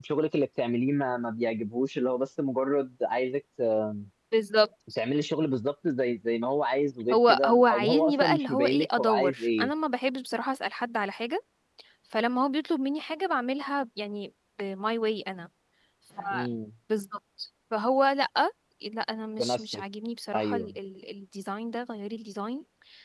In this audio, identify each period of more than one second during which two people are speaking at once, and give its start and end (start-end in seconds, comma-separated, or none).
7.1-9.7